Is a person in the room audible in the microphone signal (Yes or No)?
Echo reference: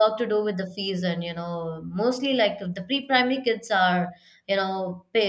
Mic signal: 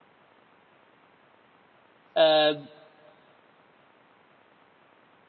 Yes